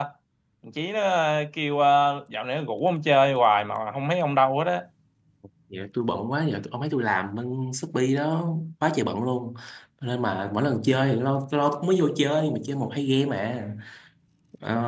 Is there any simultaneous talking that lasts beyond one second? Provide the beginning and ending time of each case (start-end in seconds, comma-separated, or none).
none